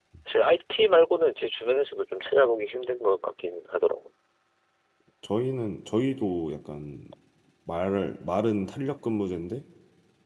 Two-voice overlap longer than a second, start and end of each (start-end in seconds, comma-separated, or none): none